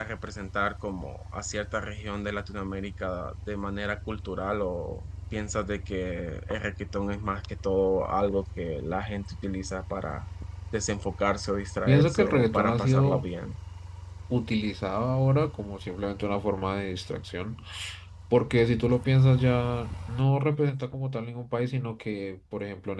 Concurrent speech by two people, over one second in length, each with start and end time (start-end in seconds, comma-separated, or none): 11.9-13.3